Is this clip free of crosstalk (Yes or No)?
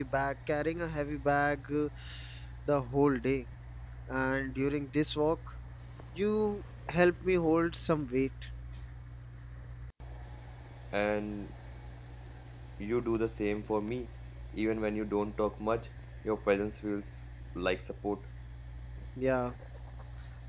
Yes